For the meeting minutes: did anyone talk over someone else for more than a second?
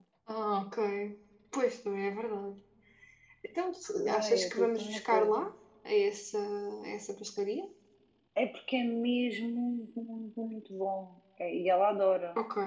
Yes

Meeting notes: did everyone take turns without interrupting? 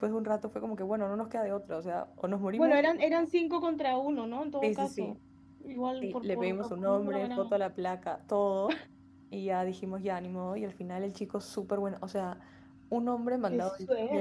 No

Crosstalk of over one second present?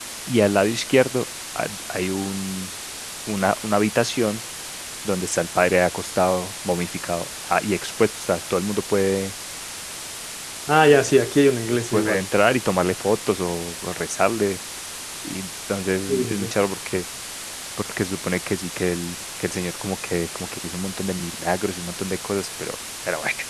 No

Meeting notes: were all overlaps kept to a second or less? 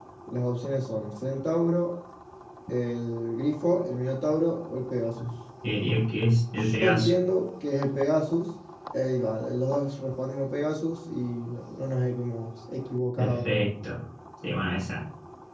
Yes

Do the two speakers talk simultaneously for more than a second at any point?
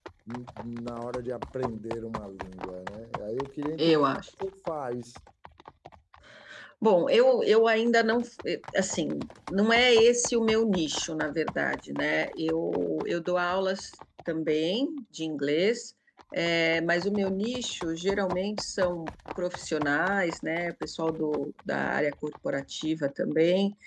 No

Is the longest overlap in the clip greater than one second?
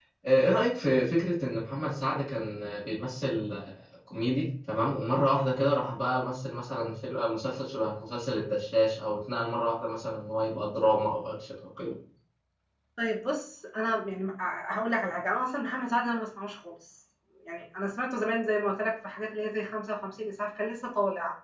No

